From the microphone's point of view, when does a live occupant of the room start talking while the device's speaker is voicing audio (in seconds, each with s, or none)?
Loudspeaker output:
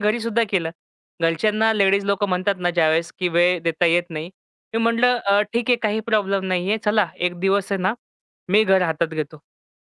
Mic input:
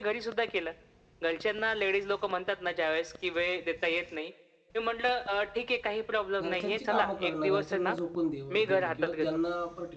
6.4 s